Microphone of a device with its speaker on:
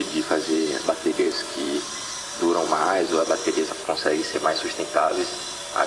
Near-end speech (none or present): none